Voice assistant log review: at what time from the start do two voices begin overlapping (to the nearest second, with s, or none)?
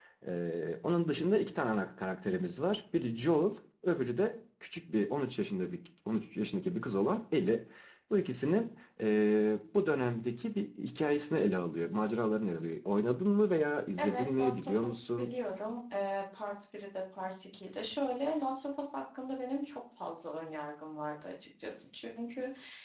14 s